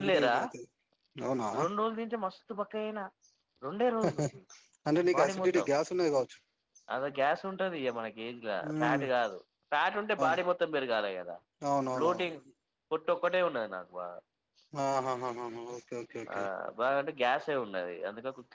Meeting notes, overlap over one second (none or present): none